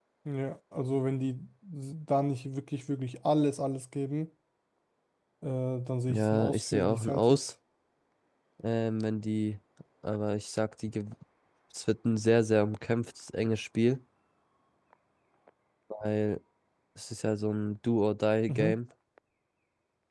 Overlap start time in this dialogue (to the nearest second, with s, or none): 6 s